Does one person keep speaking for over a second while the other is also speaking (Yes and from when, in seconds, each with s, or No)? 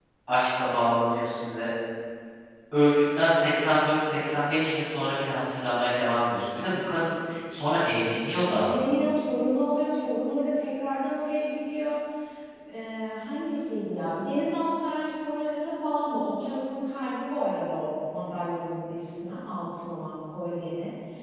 No